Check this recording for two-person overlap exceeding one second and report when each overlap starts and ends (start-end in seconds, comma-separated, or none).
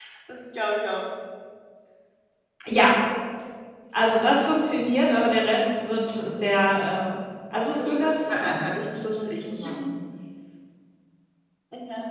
7.6-9.7